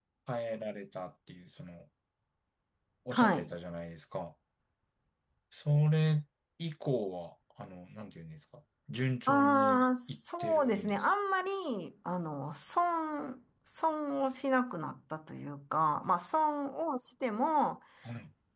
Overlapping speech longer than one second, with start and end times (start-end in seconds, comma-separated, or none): 9.3-11.1